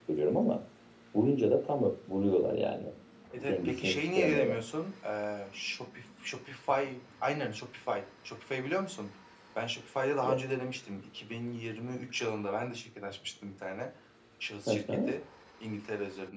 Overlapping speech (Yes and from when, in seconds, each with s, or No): Yes, from 3.4 s